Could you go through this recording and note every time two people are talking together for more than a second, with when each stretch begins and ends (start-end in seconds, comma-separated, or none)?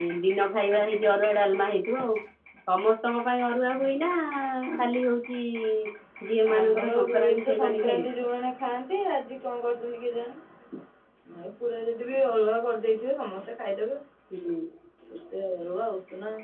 6.6-8.1